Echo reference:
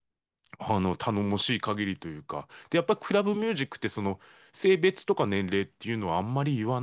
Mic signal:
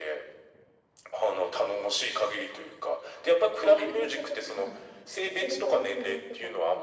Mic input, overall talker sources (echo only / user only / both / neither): both